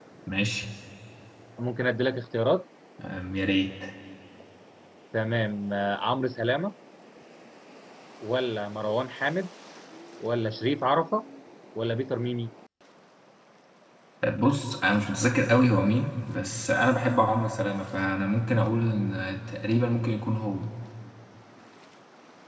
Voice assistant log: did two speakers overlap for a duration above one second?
No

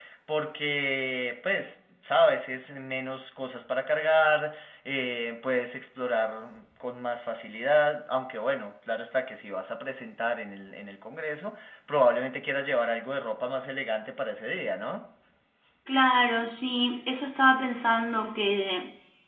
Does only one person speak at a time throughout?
Yes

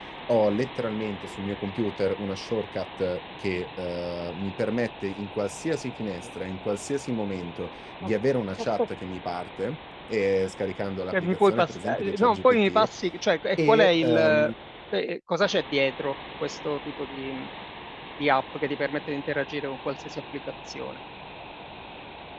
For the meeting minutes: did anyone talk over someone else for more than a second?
Yes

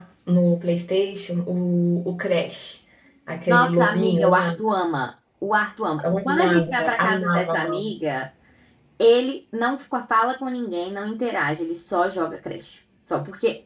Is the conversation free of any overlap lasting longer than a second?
No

